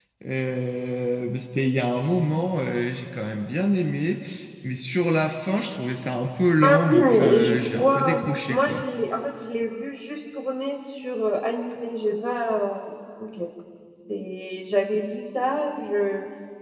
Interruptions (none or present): present